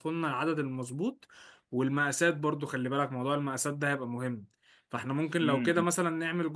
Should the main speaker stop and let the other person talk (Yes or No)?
No